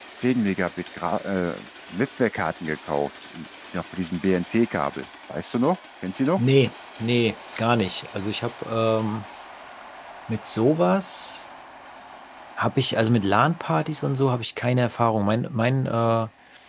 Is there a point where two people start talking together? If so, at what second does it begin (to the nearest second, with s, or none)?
none